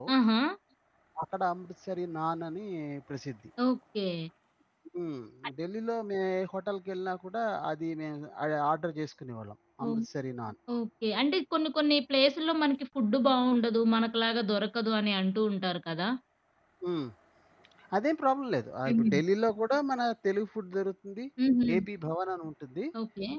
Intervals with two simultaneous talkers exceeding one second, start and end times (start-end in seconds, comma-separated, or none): none